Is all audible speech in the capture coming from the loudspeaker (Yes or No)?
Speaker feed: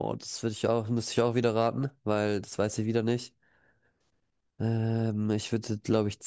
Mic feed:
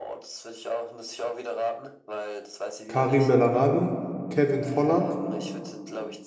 No